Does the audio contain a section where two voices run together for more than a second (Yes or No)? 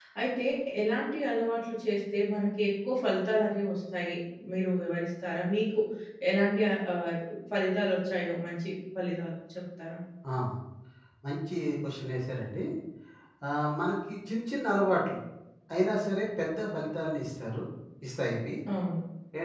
No